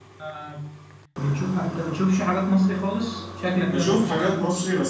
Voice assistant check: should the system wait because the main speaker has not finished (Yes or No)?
No